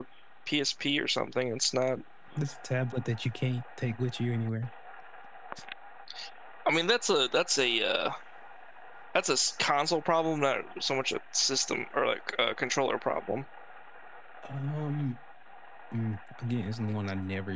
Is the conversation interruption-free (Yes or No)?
Yes